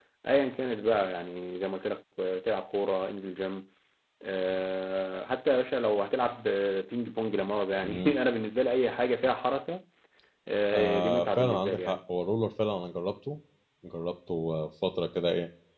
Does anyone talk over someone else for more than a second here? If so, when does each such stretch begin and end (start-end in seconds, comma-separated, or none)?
10.7-12.0